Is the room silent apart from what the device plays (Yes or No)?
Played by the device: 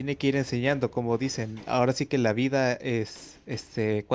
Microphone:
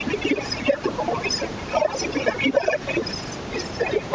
Yes